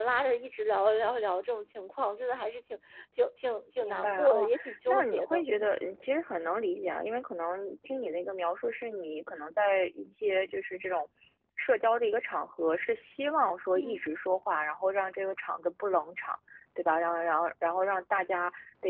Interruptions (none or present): present